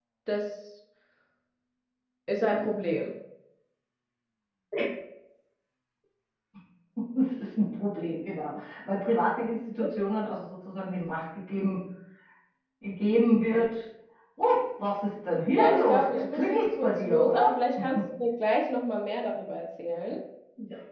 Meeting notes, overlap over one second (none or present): present